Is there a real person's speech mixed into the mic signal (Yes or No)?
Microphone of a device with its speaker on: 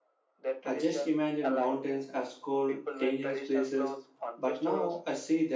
Yes